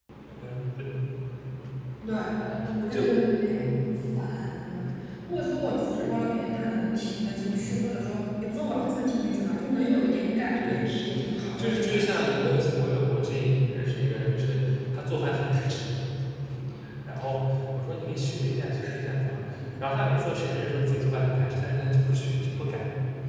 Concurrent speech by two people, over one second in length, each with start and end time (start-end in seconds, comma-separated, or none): 10.6-12.4